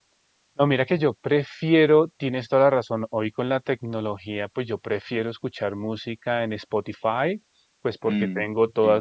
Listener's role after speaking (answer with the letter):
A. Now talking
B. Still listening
B